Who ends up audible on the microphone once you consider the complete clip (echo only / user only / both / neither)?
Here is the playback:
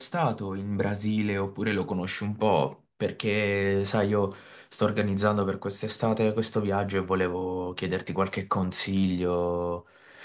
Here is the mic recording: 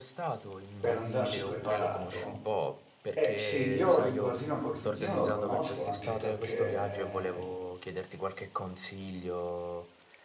both